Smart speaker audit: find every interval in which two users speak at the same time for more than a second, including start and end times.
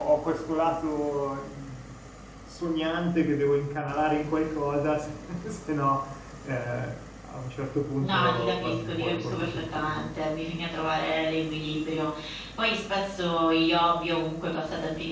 8.0-10.0

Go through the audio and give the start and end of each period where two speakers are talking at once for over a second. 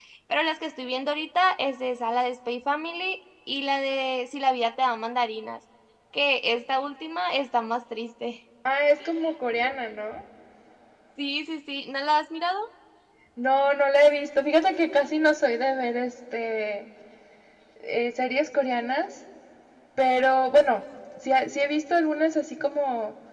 none

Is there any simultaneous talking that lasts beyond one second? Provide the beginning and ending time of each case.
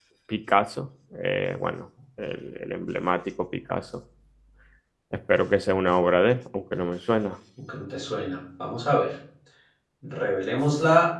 none

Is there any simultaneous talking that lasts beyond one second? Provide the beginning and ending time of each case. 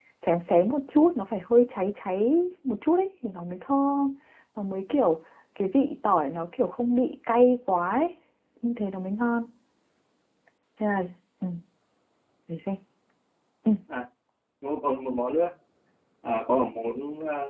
none

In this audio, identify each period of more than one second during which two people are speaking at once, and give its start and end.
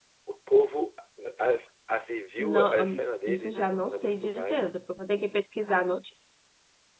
2.4-4.6

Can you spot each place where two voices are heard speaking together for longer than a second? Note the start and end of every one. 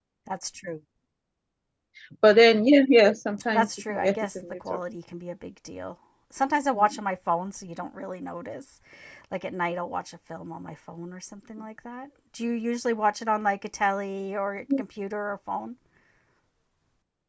3.5-4.8

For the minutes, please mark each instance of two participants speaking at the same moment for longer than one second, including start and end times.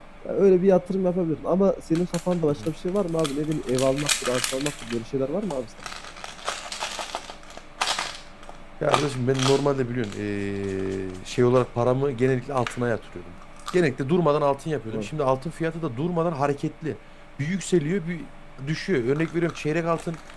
none

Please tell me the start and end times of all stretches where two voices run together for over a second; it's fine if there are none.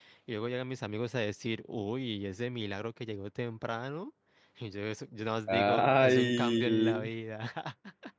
5.5-7.1

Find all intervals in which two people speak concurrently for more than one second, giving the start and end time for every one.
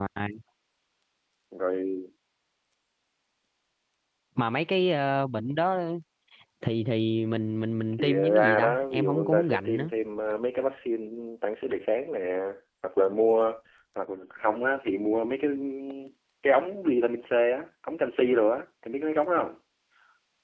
8.0-9.9

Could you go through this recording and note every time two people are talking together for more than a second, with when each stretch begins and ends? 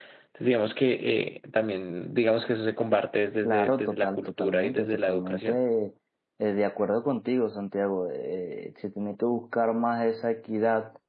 3.4-5.6

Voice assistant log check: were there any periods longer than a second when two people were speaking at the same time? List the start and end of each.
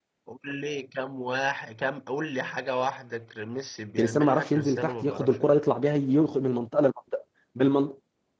4.0-5.6

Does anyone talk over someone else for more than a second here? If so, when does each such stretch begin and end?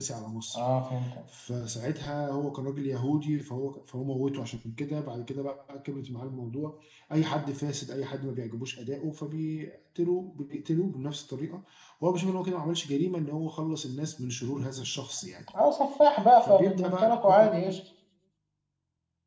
16.4-17.8

